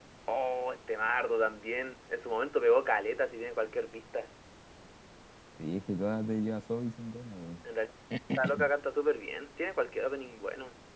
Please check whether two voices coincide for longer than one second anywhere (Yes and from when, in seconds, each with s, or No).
No